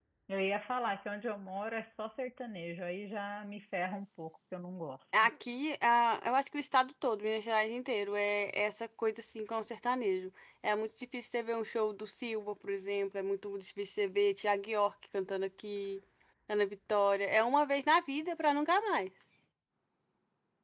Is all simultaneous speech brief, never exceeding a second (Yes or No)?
Yes